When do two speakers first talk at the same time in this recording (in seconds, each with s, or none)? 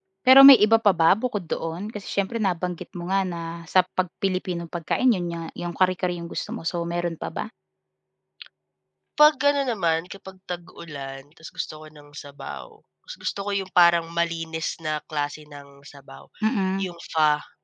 none